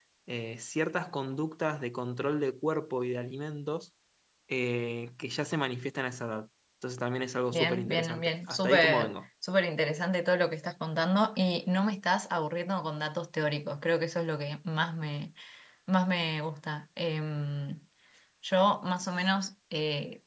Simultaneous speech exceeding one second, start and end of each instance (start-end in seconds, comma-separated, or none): 7.5-9.1